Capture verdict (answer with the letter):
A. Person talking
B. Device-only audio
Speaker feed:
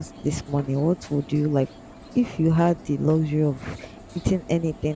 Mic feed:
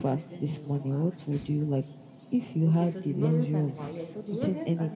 A